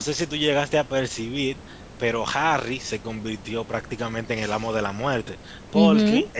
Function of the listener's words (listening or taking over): listening